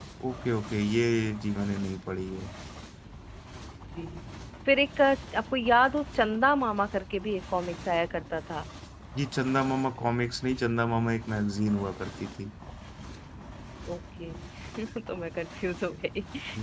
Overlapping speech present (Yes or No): No